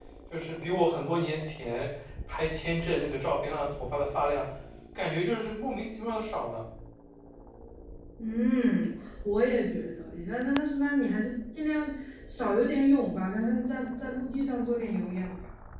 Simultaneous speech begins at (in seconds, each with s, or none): none